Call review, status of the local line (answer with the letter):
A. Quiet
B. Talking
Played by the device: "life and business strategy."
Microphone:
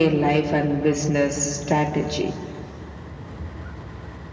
A